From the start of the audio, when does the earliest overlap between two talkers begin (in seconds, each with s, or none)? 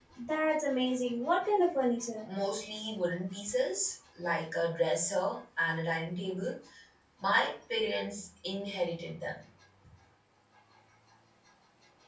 none